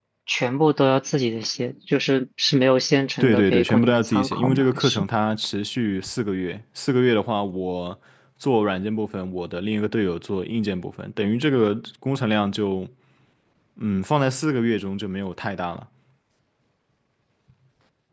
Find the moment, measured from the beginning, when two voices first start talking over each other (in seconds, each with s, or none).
3.2 s